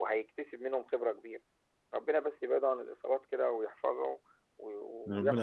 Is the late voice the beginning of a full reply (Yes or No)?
Yes